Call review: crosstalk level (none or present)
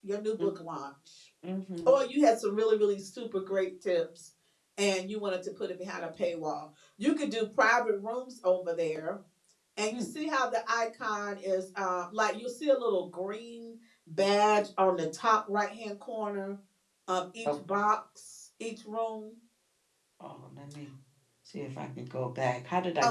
none